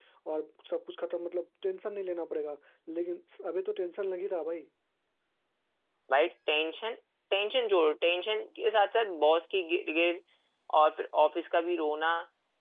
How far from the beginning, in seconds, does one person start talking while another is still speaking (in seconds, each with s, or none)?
none